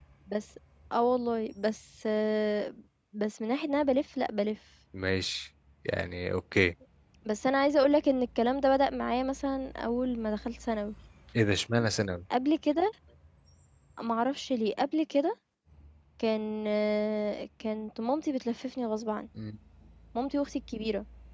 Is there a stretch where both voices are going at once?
No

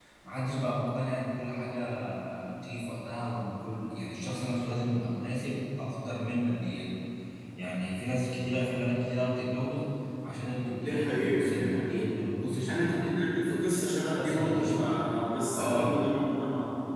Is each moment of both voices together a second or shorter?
No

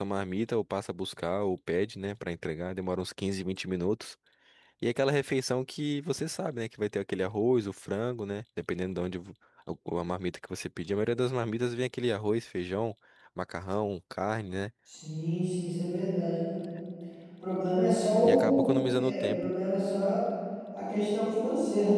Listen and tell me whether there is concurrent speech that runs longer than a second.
Yes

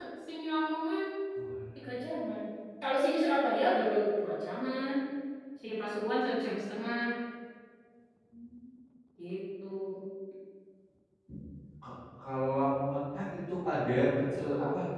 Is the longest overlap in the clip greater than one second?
No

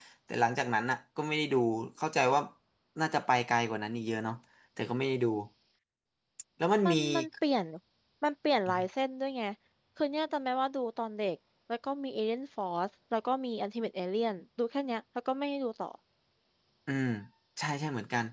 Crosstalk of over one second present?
No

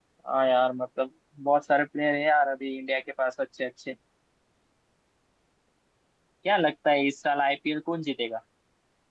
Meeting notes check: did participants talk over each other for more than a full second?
No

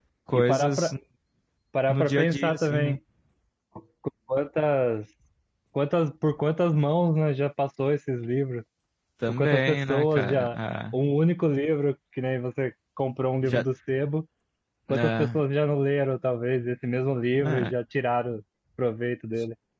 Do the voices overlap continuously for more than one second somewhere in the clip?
Yes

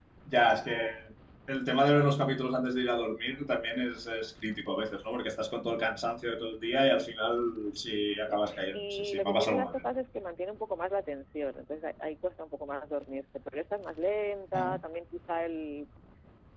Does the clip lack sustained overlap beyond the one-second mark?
No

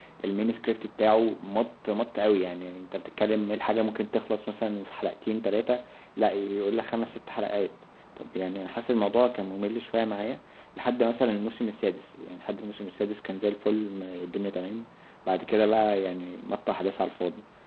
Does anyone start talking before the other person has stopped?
No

